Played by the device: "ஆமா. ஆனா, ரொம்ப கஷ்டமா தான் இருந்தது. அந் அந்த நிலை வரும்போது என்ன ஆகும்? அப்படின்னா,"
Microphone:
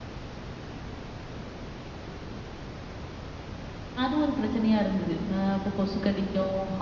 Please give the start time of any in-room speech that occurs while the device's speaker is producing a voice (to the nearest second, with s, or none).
4 s